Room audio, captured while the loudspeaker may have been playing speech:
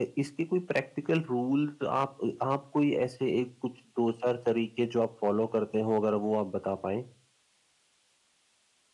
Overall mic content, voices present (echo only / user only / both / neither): user only